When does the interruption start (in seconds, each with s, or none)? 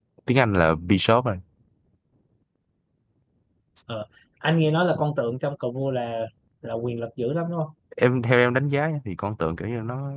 none